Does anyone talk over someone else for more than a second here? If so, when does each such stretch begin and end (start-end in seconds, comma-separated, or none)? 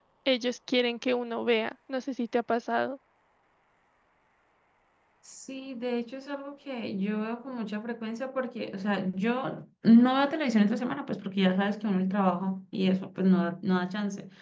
none